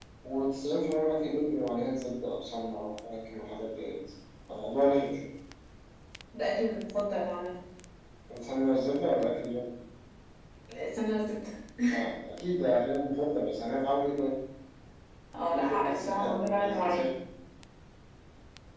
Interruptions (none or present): present